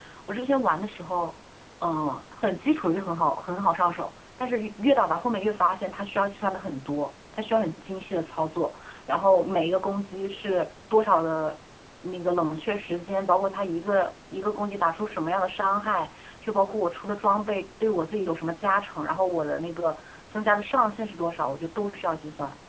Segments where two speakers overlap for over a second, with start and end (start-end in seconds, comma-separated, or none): none